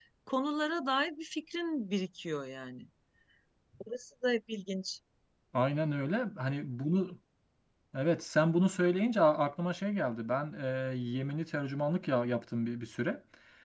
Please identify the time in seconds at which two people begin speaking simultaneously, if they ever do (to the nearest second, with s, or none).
none